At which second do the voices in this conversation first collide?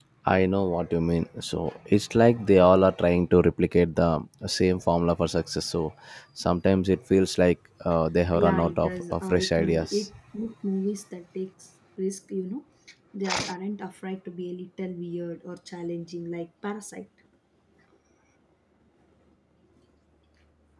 8.3 s

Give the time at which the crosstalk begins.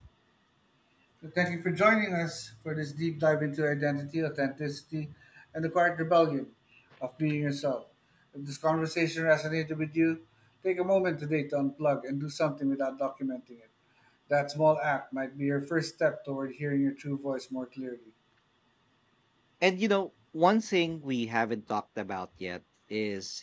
none

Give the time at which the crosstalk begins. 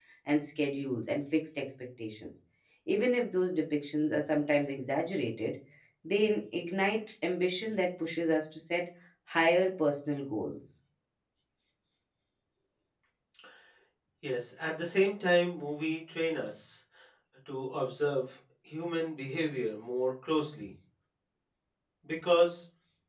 none

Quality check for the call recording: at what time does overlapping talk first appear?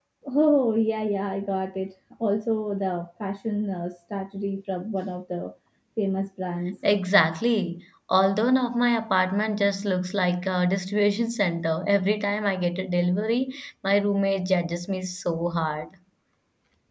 none

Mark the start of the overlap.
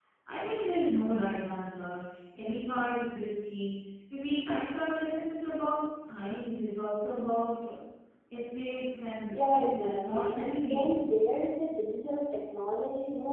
9.3 s

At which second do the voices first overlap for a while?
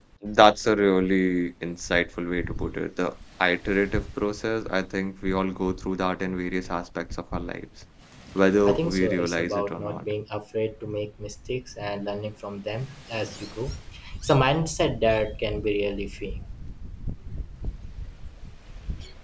8.7 s

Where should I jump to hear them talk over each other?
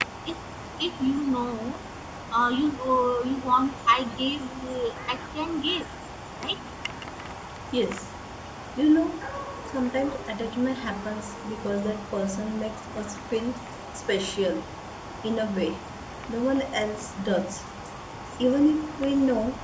none

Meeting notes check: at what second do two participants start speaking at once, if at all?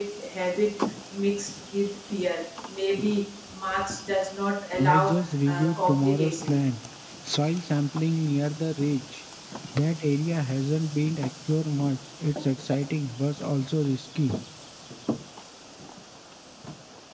4.8 s

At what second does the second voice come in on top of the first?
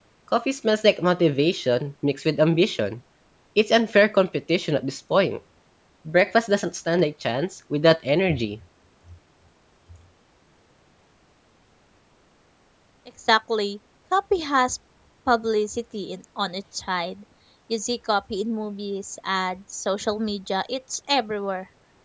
none

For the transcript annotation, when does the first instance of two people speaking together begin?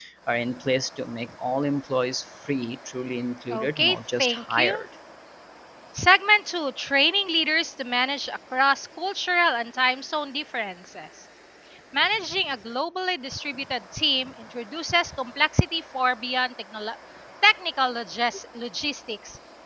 3.5 s

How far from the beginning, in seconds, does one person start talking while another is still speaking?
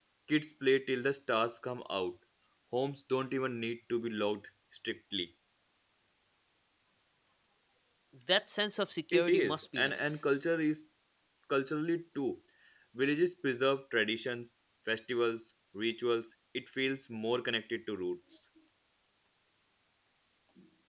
9.1 s

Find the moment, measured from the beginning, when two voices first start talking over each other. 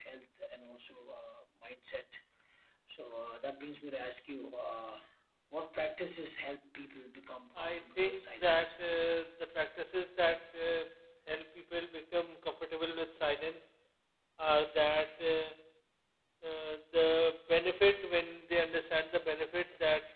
7.6 s

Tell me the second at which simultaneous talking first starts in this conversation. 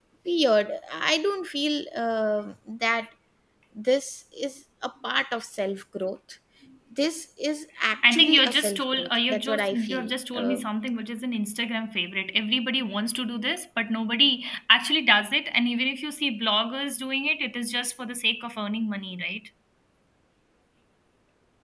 8.0 s

